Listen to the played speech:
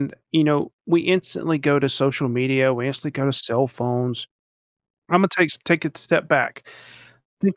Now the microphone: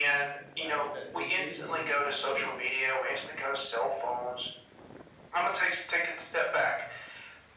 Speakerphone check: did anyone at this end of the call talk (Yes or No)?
Yes